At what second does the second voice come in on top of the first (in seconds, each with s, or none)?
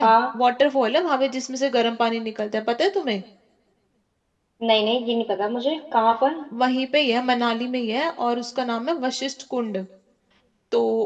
none